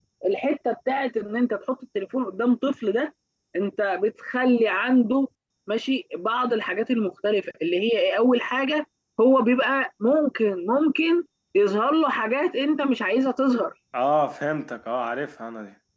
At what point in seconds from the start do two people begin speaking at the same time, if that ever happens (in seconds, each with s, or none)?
none